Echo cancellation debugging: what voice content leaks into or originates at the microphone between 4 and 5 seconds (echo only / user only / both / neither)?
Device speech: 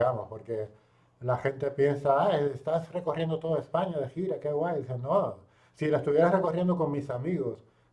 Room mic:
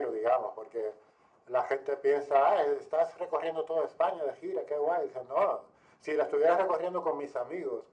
echo only